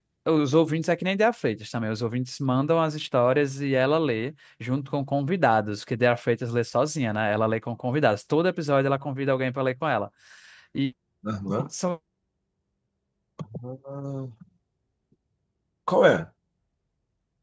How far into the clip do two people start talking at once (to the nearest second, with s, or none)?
none